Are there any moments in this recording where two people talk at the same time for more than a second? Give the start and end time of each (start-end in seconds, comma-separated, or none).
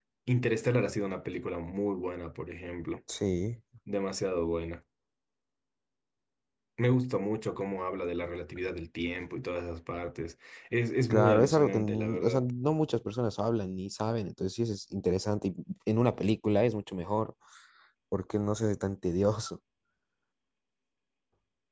11.1-12.5